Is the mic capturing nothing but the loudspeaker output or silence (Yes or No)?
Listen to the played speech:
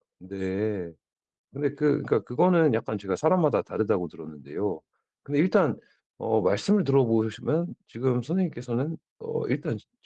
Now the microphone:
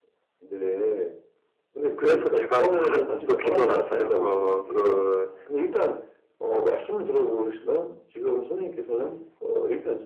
No